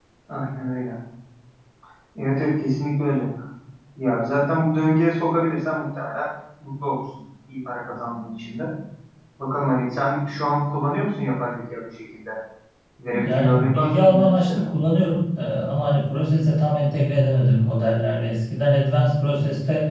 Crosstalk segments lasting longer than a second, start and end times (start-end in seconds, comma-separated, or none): 13.1-14.6